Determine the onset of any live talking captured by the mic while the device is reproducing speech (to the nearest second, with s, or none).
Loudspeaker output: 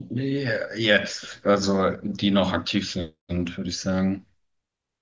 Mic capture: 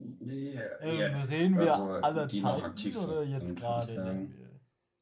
1 s